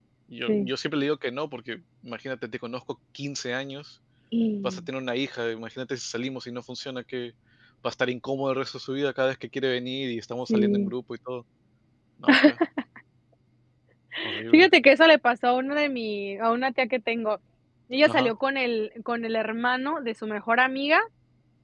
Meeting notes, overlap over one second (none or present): none